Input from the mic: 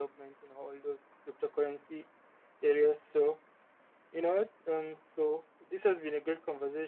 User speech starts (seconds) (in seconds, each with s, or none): none